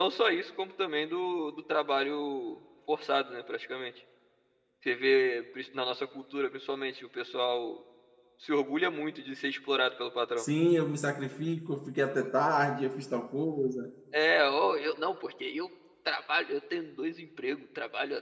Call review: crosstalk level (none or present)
none